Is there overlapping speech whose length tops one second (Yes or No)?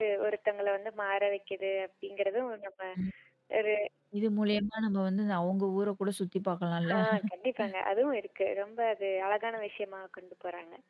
No